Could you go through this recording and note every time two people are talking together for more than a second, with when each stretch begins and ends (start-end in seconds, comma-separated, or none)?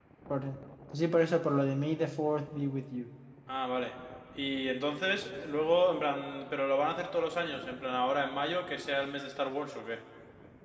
none